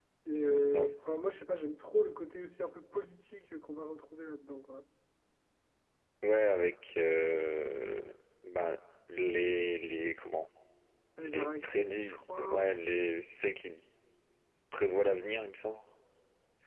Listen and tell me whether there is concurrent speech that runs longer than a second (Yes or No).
Yes